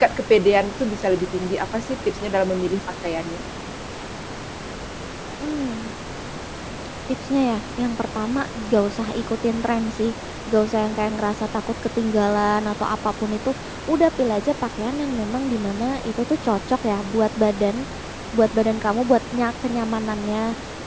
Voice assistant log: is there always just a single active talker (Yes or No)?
Yes